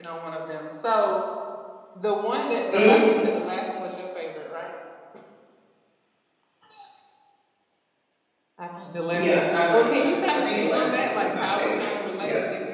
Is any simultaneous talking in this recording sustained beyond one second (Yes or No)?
Yes